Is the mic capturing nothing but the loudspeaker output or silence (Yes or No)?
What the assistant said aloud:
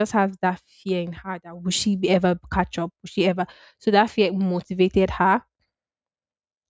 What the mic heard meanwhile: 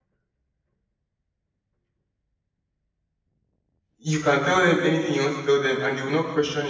No